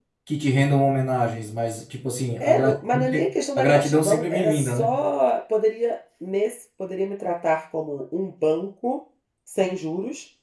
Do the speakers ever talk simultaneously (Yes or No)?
Yes